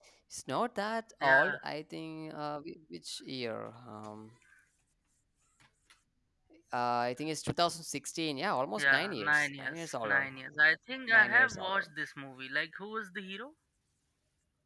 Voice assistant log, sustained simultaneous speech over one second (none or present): present